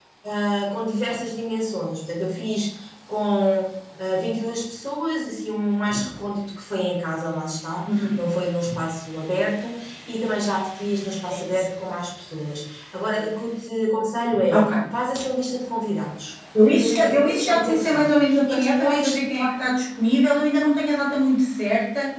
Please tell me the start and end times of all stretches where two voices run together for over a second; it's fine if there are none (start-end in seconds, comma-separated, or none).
16.7-19.2